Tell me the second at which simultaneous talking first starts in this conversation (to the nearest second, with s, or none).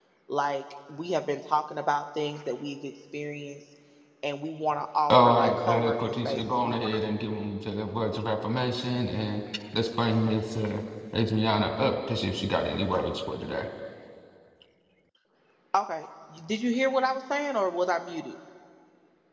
5 s